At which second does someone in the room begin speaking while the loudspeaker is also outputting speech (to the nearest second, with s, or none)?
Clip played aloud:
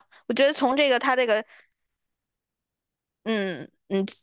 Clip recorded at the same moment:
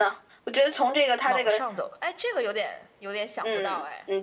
1 s